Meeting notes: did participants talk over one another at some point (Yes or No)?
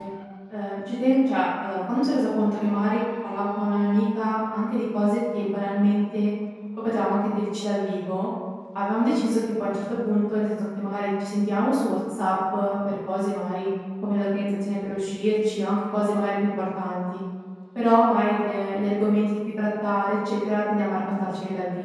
No